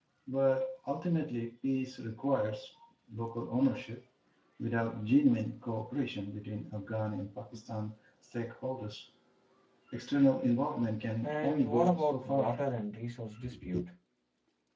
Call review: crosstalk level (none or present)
present